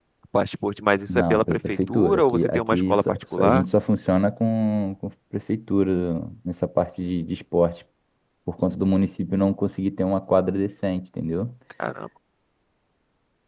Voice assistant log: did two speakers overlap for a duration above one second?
Yes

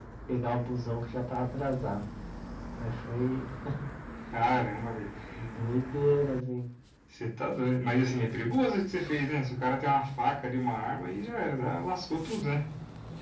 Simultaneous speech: No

